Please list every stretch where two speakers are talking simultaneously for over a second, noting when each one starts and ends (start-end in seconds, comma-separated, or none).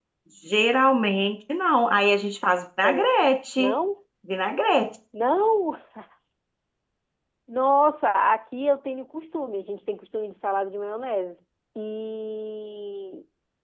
none